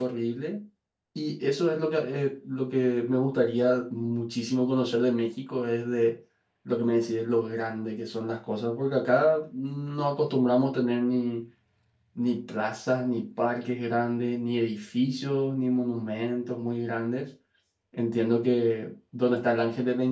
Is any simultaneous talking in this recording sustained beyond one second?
No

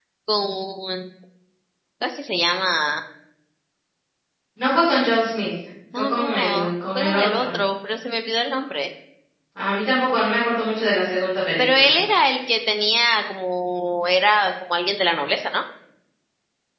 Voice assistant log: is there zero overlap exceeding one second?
No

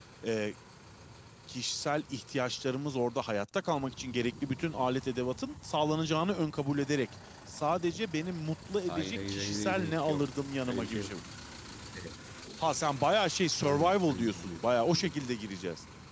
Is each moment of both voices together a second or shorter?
No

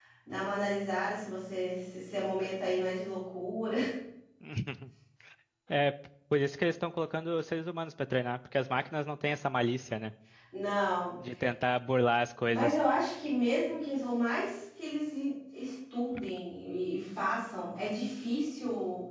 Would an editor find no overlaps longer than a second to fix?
Yes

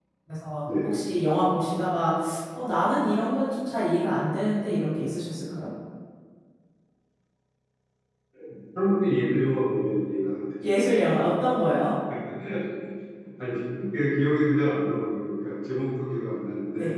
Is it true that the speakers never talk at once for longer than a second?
Yes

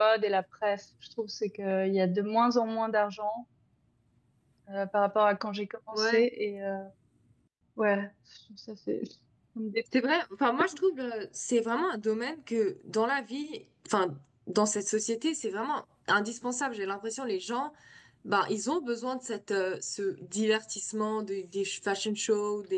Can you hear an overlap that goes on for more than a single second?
No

